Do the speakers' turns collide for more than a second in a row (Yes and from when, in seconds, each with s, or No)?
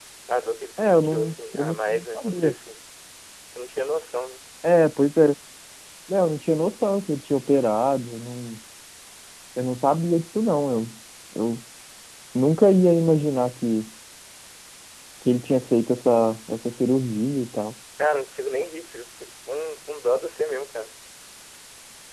Yes, from 0.8 s